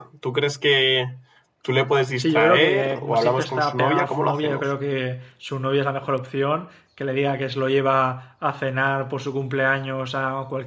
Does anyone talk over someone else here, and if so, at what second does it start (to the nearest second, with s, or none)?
2 s